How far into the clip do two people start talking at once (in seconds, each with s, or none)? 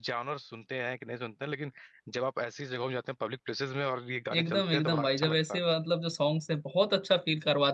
4.3 s